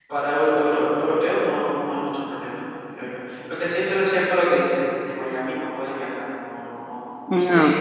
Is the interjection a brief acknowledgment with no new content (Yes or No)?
Yes